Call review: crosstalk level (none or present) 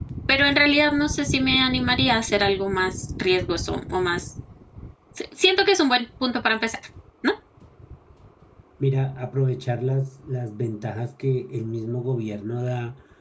none